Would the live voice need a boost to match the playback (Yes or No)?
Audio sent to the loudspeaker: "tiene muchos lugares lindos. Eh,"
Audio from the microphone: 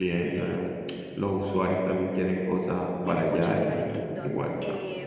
No